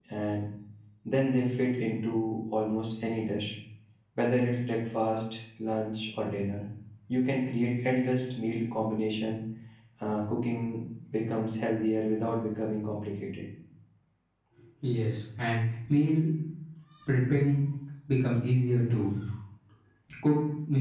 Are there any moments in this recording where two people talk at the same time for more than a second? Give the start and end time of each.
none

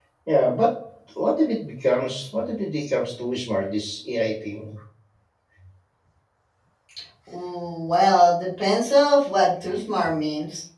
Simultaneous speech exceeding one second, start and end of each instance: none

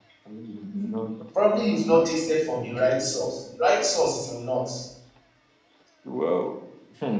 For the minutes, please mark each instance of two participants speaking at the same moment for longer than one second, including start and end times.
none

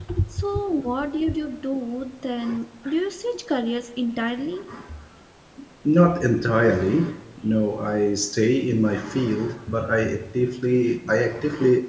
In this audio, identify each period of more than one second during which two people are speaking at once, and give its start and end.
none

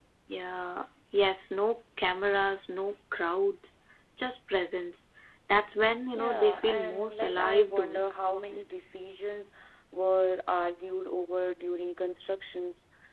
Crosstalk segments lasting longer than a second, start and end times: 6.2-8.0

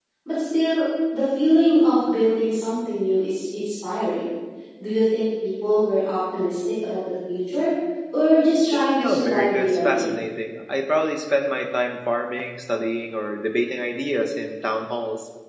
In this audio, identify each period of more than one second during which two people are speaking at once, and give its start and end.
8.7-10.2

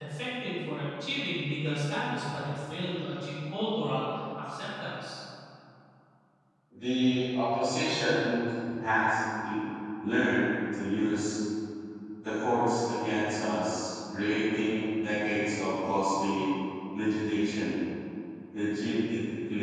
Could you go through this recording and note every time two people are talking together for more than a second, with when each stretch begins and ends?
none

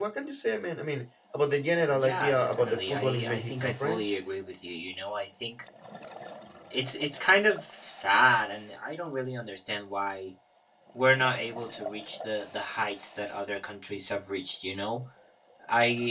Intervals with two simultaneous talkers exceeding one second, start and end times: 1.9-4.0

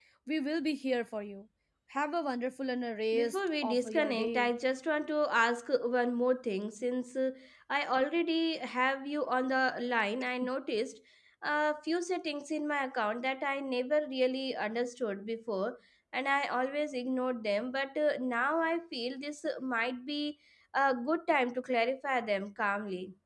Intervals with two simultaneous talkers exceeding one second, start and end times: 3.1-4.5

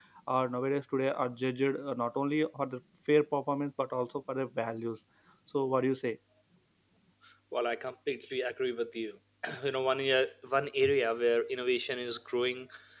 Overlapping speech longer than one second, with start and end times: none

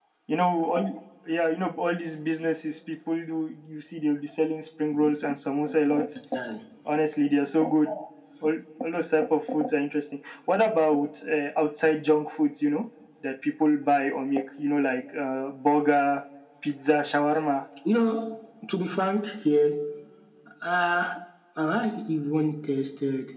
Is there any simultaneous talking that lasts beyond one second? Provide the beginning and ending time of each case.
none

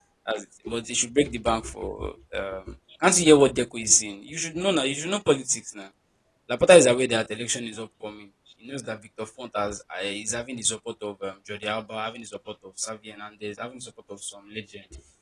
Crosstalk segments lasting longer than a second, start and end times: none

